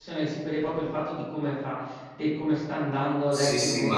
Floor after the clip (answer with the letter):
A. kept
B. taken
B